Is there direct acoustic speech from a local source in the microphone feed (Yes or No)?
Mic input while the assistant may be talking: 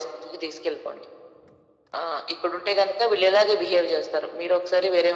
No